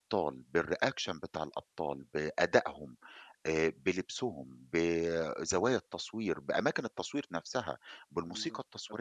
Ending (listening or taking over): taking over